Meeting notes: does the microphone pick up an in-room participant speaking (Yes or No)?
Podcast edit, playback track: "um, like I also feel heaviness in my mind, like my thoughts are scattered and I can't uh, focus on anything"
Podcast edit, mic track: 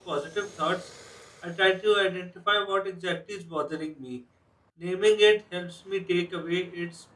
Yes